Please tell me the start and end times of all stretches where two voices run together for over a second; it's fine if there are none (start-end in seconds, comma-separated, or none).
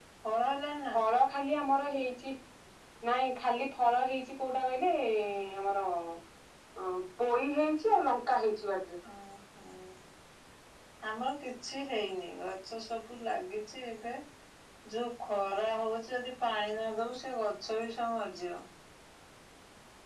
none